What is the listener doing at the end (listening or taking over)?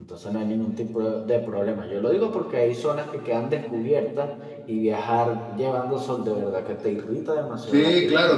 taking over